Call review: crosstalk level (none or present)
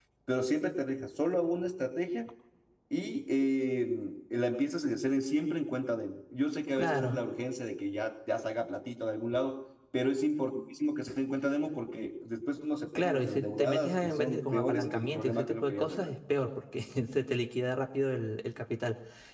present